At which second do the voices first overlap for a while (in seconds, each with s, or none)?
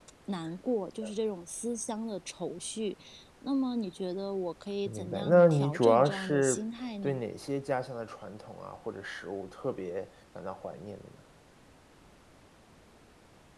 4.9 s